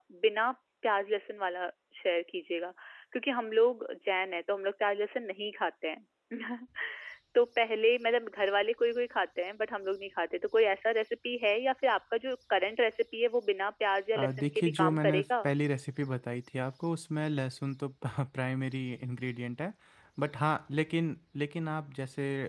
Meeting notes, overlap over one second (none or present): present